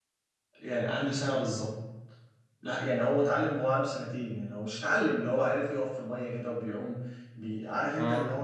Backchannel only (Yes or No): Yes